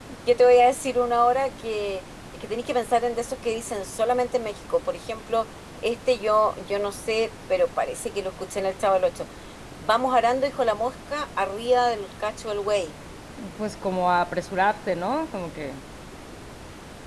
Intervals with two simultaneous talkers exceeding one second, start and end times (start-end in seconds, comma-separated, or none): none